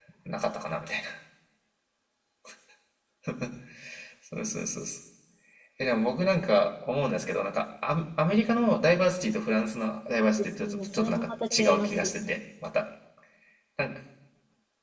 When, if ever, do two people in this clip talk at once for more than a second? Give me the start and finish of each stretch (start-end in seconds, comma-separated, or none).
10.4-12.3